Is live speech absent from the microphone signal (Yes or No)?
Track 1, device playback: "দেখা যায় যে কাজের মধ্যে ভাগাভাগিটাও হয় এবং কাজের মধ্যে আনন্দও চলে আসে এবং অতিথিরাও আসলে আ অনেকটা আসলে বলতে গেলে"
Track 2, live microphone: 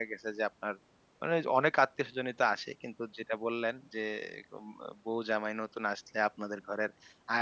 No